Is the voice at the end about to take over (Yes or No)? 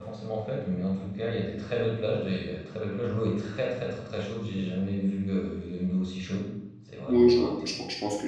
Yes